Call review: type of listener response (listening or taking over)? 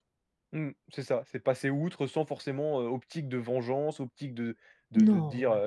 listening